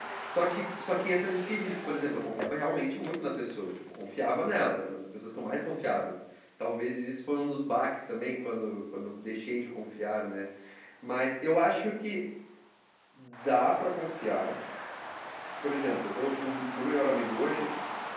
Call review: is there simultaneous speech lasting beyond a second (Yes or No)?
No